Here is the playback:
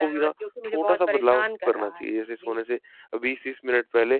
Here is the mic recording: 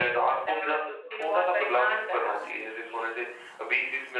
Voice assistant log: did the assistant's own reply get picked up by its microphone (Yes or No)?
Yes